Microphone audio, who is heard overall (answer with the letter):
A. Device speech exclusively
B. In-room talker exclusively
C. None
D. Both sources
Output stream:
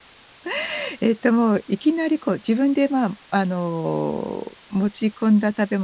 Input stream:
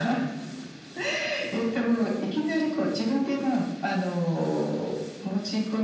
A